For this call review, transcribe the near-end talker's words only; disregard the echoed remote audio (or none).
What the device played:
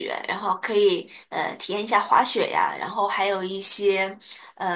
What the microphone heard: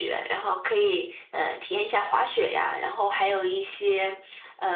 none